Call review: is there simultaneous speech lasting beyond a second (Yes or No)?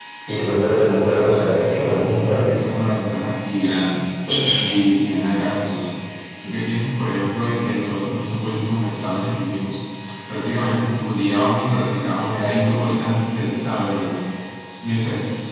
Yes